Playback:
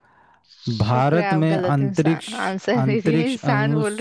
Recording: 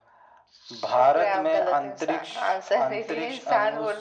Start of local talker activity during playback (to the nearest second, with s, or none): none